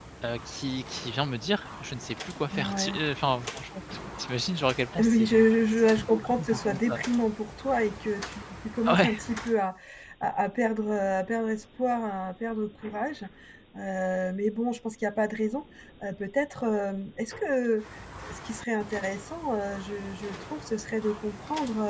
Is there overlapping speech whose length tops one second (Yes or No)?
Yes